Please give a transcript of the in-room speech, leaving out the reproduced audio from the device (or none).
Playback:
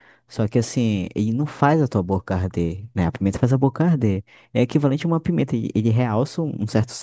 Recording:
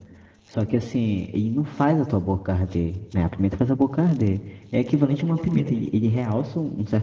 none